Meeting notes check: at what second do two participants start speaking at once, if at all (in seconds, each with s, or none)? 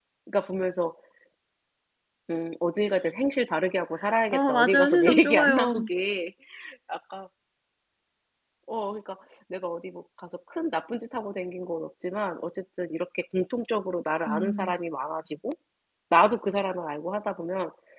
4.3 s